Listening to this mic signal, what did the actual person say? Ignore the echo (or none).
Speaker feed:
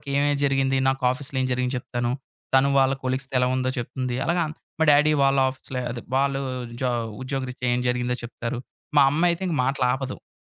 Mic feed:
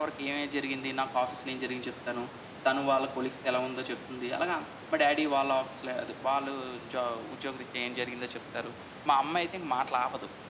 none